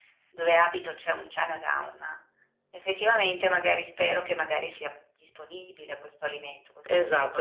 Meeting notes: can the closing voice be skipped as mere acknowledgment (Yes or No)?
No